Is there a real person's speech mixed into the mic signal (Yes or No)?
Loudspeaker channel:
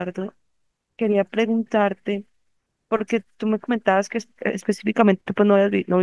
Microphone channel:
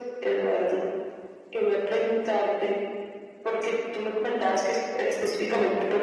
No